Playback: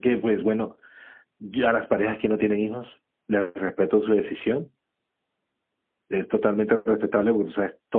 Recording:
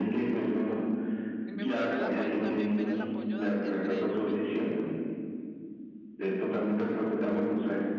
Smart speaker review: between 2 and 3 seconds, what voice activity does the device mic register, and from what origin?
both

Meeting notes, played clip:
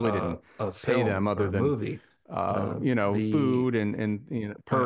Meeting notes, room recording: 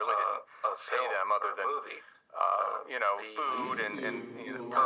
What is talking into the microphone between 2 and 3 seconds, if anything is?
echo only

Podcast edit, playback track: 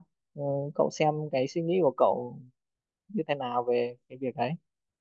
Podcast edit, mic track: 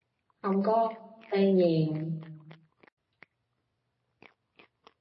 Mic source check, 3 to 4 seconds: neither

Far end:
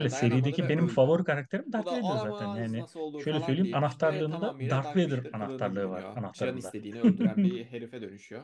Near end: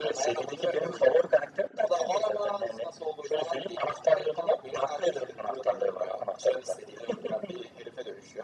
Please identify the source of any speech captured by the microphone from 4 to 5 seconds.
echo only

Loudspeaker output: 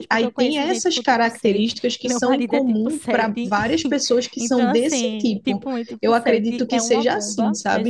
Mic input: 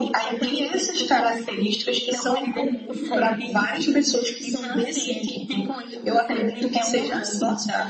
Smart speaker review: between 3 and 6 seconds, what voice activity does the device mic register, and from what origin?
echo only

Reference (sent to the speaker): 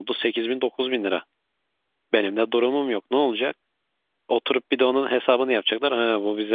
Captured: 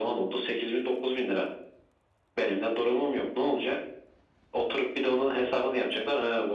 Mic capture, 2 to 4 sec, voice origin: echo only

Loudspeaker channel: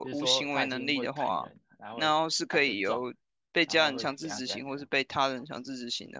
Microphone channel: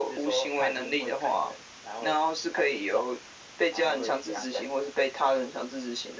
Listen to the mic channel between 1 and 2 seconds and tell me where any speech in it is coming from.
echo only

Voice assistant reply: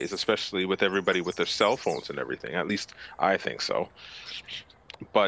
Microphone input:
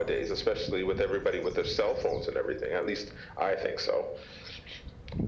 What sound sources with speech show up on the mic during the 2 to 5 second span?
echo only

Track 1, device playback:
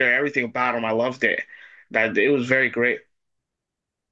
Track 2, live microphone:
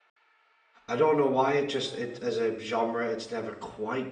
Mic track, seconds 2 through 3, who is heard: user only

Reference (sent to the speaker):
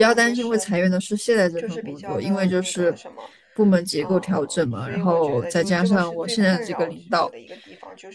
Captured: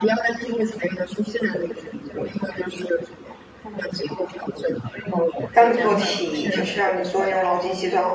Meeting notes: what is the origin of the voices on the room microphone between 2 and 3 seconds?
echo only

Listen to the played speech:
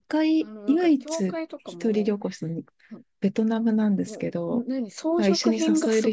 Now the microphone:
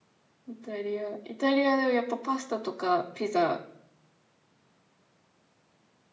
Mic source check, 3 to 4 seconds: user only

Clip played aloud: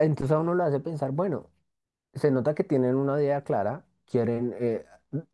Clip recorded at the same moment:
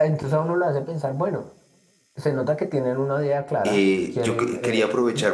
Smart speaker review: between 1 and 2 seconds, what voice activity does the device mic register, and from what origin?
echo only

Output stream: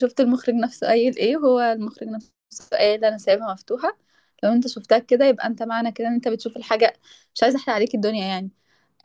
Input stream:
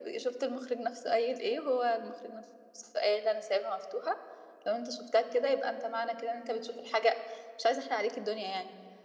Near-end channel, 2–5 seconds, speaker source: echo only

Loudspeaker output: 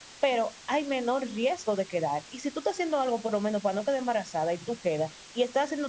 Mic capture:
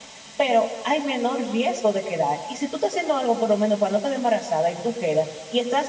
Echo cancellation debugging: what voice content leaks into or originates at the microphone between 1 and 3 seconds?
echo only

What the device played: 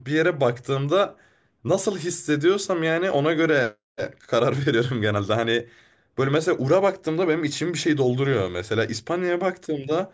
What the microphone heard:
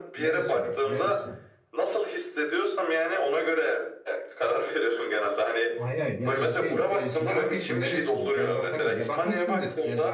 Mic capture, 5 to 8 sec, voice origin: both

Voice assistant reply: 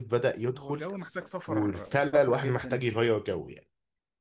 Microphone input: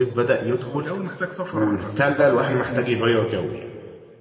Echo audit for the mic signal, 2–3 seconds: echo only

